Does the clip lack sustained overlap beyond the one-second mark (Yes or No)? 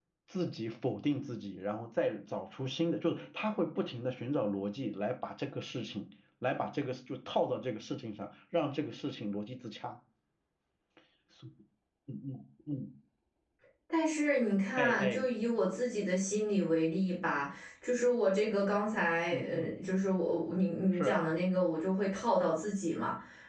Yes